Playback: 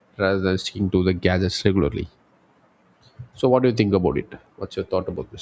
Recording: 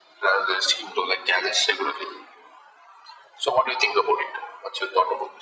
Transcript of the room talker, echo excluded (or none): none